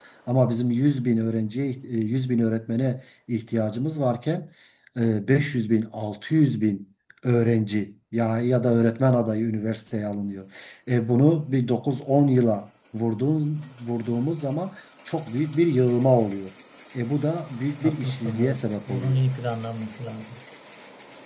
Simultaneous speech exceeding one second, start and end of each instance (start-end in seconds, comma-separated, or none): 17.8-19.2